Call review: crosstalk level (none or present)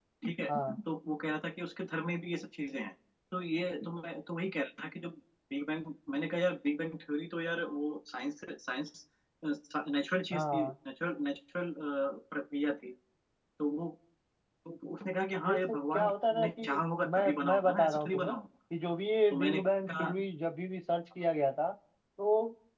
present